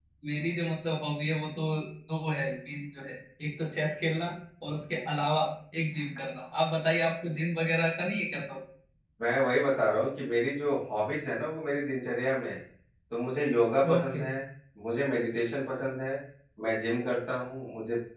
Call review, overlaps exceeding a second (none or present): none